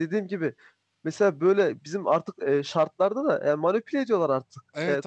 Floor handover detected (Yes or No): Yes